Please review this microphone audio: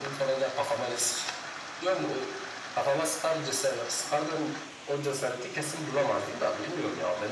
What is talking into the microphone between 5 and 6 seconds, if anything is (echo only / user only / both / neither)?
echo only